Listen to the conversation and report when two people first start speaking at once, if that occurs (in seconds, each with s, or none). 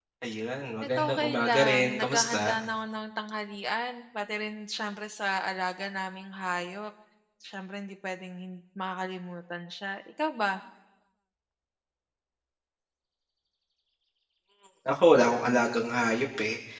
1.0 s